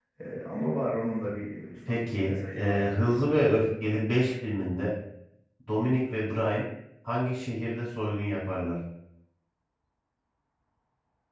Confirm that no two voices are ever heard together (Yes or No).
No